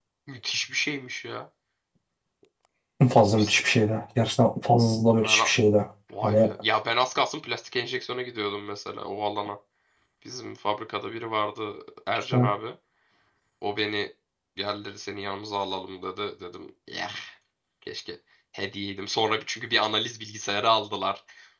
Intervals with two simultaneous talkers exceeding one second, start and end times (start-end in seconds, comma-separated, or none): none